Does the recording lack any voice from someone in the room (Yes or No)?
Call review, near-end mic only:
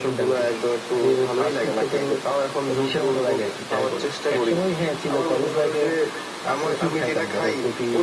Yes